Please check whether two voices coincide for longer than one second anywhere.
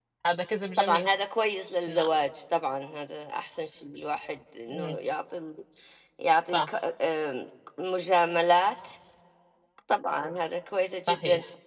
No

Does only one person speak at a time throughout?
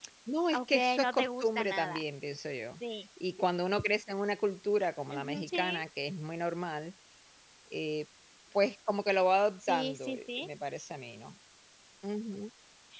No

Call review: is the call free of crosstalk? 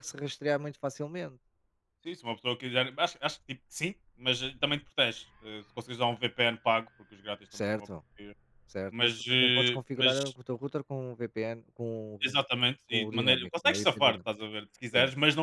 No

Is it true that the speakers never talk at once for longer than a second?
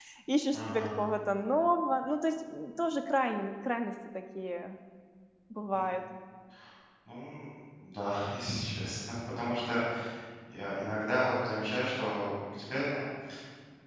Yes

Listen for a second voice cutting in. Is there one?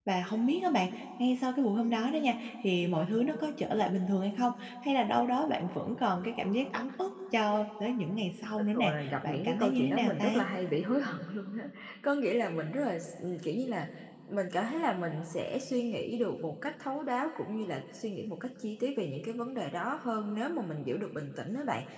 Yes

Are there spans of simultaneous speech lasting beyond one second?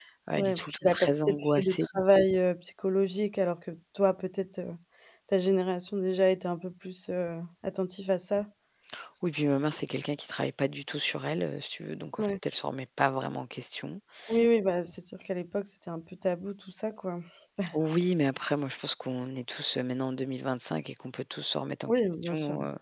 Yes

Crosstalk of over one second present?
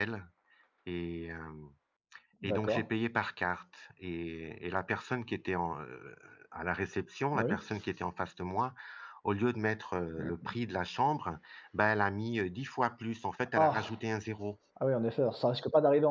No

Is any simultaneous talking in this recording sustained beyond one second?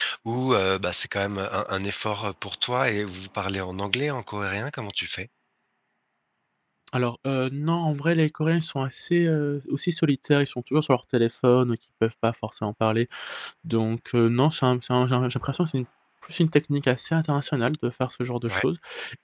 No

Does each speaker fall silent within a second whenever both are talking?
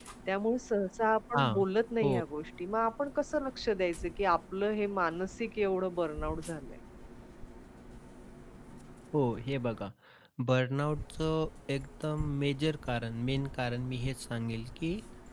Yes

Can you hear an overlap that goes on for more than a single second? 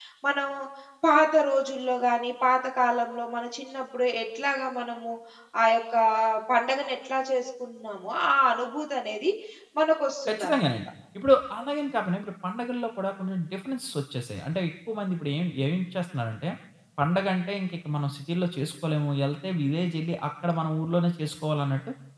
No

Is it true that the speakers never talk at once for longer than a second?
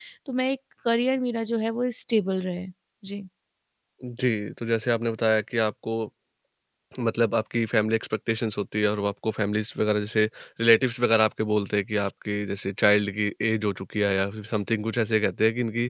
Yes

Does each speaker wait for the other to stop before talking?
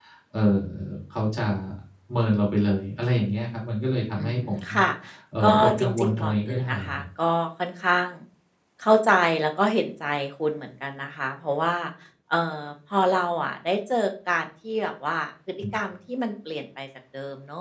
No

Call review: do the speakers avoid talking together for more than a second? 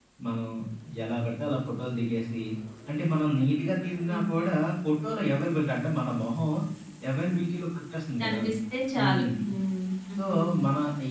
Yes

